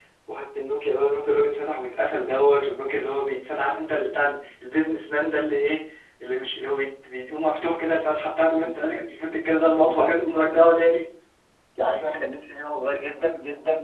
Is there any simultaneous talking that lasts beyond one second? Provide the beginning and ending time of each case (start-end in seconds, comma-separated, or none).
9.6-10.9